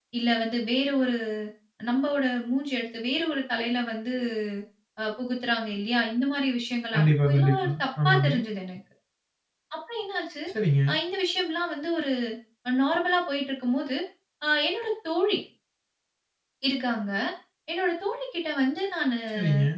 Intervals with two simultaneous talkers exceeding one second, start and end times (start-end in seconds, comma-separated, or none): 6.9-8.3